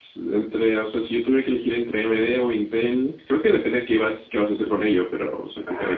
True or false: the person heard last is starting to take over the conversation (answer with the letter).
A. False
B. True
B